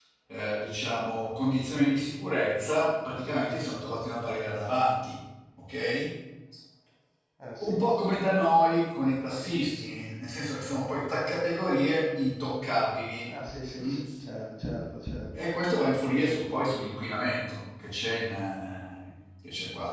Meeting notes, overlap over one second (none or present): none